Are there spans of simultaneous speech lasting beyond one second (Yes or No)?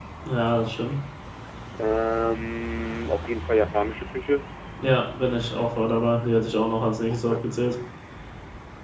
No